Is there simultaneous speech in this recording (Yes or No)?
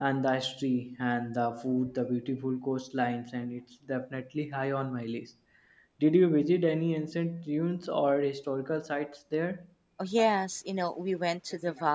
No